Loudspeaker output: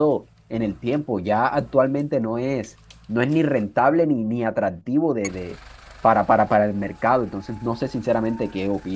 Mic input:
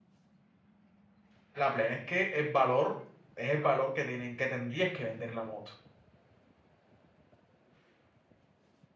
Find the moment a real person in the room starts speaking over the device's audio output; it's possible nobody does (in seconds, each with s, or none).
1.5 s